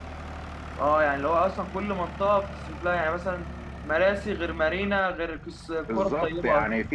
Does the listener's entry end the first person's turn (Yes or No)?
Yes